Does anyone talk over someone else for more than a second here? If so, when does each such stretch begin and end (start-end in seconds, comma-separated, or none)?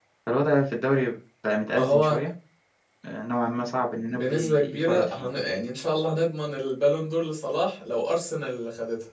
4.1-5.3